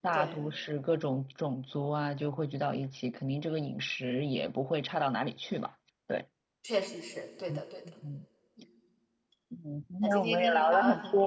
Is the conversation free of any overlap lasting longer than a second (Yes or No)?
No